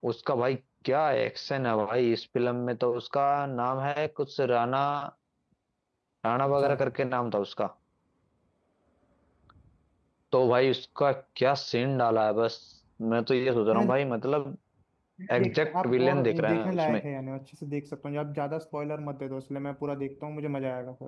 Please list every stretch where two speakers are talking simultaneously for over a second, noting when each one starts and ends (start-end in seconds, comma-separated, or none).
15.3-17.0